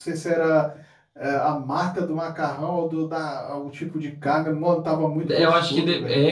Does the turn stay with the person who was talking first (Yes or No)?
No